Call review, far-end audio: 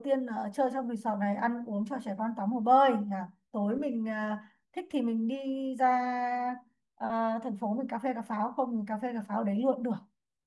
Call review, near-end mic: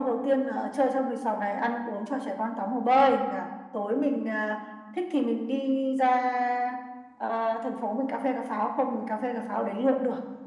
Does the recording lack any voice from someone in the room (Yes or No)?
Yes